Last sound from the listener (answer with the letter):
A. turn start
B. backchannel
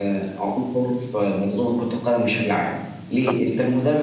B